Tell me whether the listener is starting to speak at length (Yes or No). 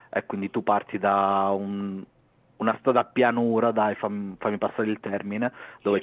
No